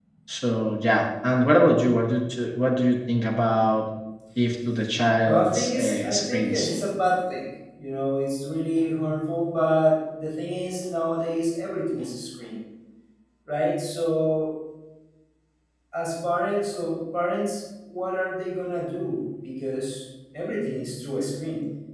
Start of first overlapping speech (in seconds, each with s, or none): 5.2 s